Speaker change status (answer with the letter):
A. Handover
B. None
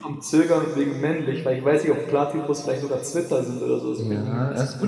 A